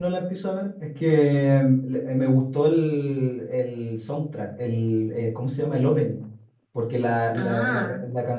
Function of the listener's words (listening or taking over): listening